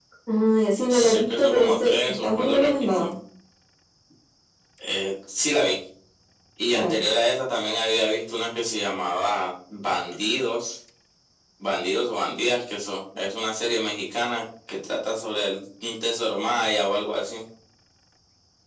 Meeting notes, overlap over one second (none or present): present